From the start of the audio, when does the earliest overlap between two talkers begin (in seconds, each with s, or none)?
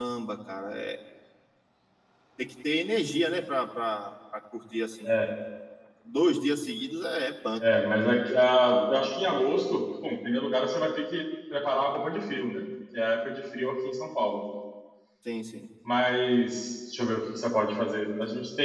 none